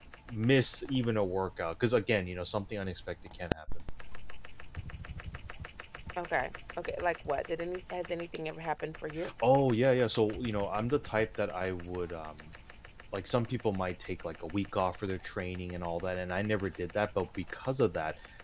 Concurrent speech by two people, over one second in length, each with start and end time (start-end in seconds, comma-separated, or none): none